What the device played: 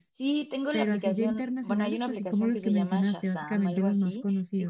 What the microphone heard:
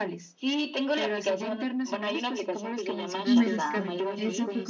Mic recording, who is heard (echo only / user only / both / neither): both